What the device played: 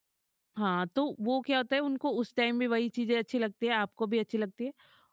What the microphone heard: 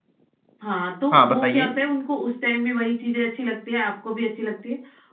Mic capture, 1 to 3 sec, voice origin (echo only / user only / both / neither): both